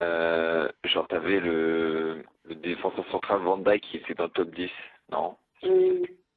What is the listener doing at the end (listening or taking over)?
taking over